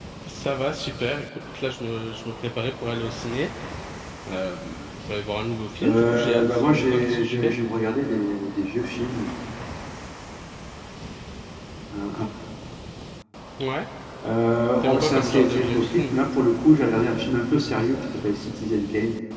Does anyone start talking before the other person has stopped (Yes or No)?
Yes